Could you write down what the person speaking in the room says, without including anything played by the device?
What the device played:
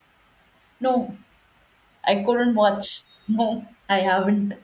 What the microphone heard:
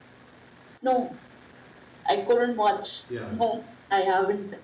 Yeah.

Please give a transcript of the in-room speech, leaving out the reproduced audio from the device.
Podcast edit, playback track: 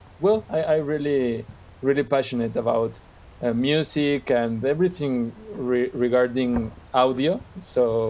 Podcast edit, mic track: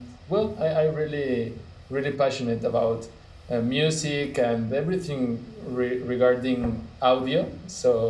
none

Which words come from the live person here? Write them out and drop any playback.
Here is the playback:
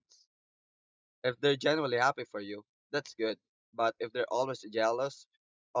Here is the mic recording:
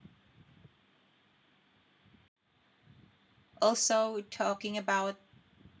Also, talking about

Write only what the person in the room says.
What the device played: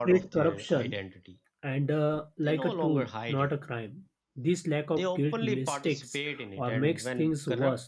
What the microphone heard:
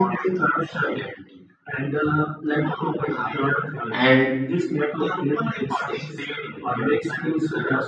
and

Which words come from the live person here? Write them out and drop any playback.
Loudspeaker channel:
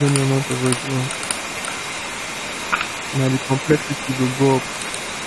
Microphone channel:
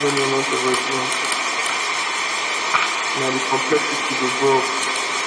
none

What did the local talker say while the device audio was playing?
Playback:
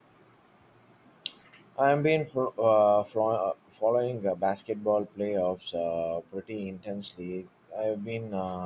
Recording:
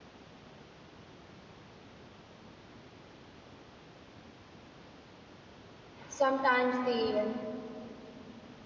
sometimes the

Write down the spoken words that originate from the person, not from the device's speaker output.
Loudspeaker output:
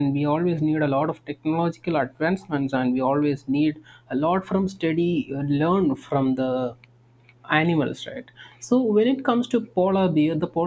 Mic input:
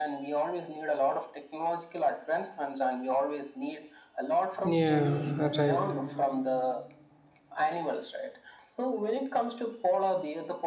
Yeah. Right.

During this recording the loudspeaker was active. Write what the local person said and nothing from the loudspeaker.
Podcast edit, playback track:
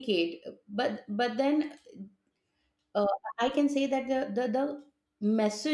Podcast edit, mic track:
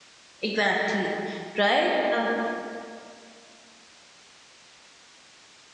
exactly. Right? Uh,

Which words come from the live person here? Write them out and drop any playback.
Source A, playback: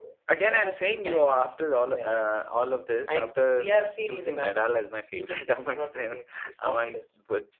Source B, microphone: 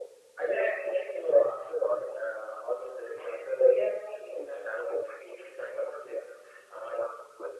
none

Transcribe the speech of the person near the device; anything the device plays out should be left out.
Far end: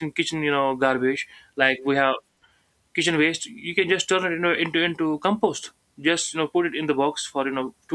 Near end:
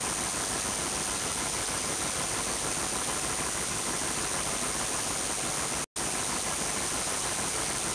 none

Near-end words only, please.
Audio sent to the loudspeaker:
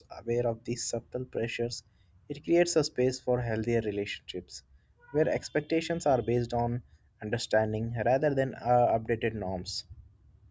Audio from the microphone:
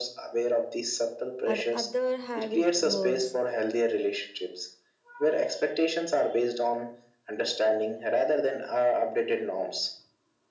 or other have it worse,

